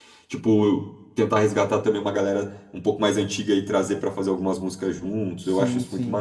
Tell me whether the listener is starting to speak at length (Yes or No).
Yes